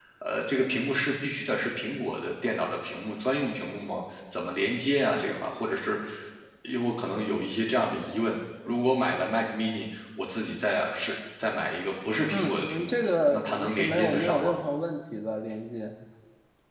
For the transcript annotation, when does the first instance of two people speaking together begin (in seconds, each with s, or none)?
12.3 s